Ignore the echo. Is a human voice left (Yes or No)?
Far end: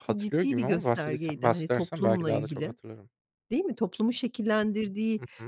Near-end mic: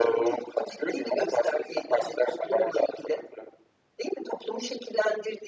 No